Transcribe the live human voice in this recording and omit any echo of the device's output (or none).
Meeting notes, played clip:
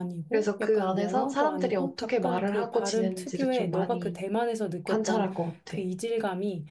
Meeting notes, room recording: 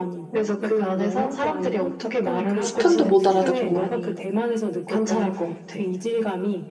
스푼도 못 알아듣고.